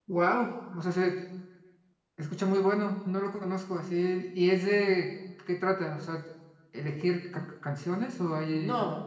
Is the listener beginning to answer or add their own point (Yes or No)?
Yes